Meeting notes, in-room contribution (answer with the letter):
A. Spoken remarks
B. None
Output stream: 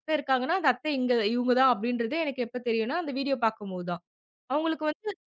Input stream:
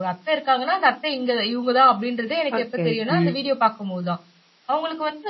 A